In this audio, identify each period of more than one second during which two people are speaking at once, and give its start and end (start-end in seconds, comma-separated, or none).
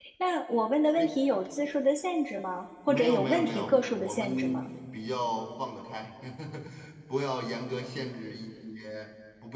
2.9-4.7